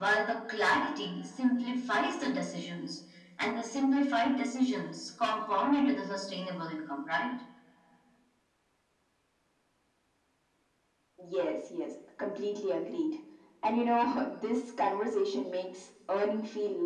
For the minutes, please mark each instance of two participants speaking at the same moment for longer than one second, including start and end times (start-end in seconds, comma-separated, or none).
none